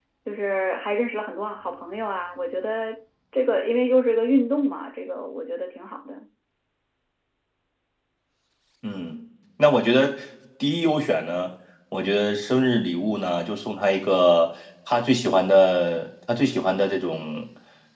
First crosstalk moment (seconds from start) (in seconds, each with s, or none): none